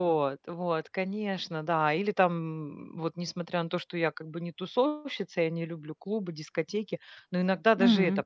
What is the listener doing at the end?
listening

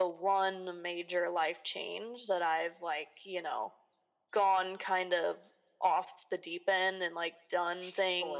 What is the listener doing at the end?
listening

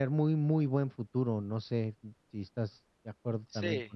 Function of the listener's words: taking over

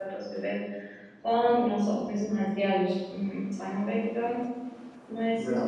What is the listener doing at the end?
listening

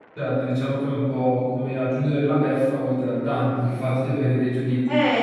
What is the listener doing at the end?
taking over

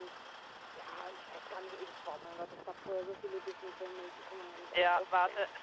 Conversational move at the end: taking over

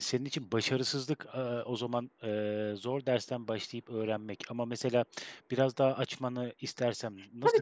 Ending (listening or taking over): taking over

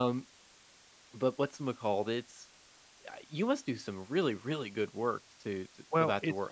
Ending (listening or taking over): taking over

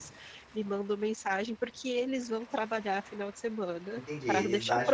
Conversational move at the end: taking over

